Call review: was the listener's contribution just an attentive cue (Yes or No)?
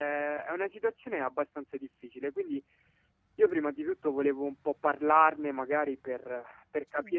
Yes